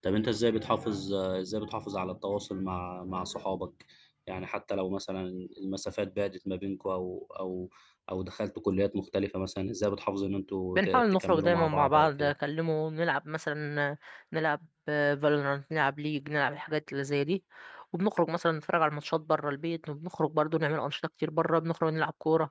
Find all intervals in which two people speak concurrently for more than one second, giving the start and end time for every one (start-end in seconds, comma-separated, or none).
10.8-12.3